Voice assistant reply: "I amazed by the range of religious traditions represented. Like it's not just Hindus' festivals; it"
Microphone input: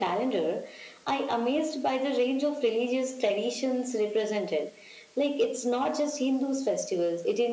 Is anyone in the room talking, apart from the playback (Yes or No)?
No